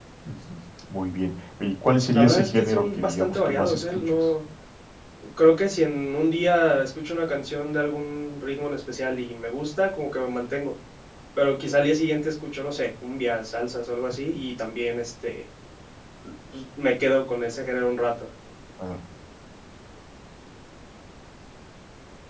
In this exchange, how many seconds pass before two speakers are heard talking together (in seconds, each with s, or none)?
2.1 s